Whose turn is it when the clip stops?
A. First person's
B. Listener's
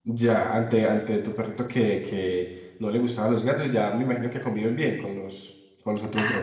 B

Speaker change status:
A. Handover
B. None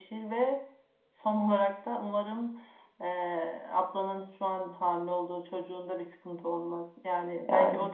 B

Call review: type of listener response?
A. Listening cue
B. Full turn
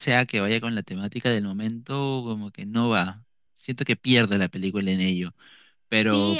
B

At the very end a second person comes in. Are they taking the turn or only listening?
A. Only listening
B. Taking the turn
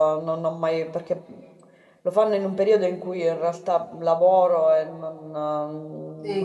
B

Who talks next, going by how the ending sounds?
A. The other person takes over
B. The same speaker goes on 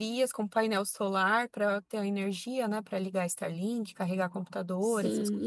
A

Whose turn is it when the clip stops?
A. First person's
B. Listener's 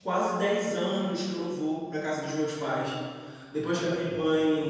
A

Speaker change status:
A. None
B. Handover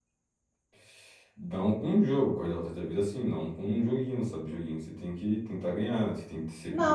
B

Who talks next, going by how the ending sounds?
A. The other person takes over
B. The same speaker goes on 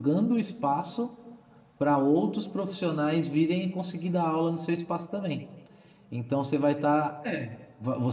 B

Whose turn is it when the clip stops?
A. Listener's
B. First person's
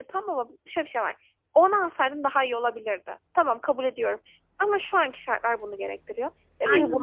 B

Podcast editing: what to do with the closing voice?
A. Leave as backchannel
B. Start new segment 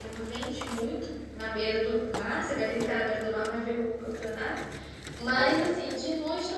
A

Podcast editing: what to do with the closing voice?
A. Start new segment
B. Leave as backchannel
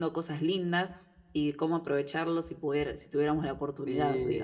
A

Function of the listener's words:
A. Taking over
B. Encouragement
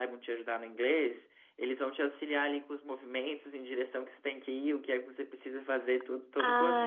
A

